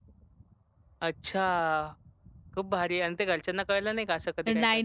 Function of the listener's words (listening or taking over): taking over